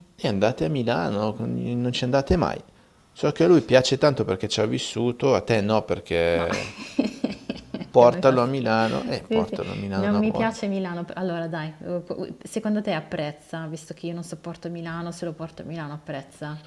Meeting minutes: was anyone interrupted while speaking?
Yes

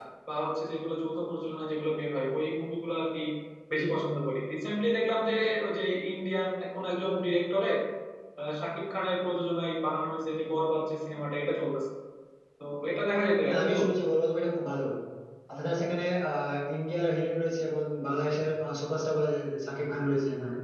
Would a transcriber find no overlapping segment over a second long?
Yes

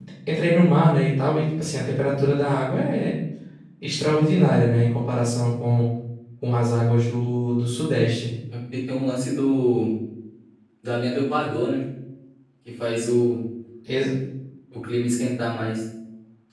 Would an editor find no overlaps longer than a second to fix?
Yes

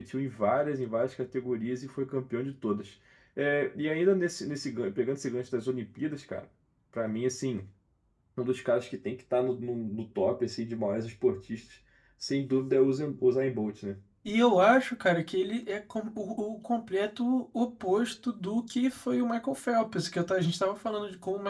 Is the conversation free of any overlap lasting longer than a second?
Yes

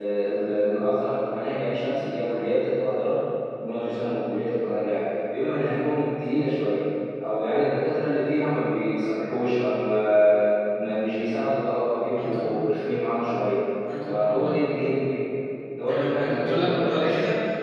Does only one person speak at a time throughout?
No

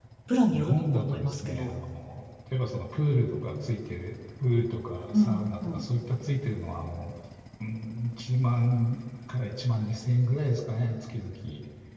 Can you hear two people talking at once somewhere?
Yes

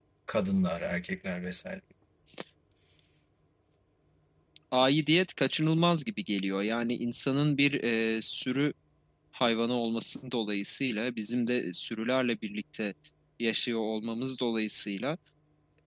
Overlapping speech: No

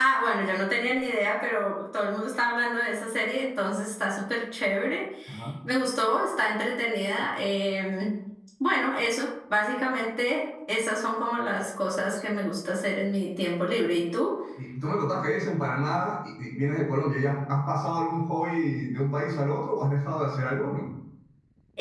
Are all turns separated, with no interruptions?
Yes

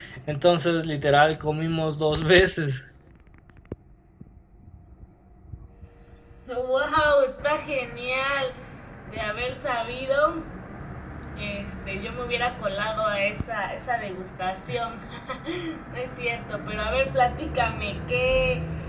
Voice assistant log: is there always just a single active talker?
Yes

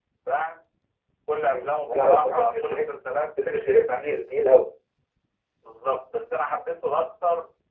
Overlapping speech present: Yes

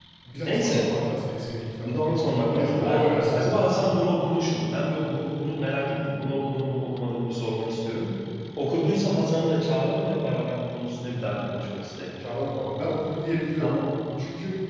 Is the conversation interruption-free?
No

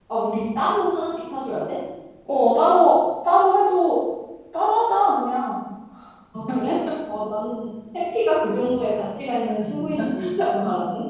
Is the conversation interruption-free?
Yes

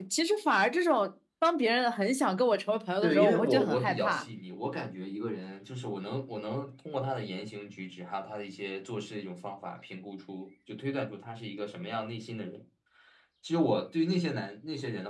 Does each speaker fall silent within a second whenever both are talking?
No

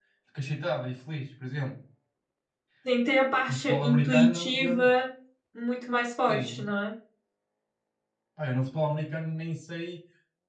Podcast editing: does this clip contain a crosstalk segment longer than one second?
Yes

